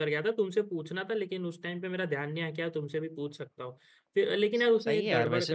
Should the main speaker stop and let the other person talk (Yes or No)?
Yes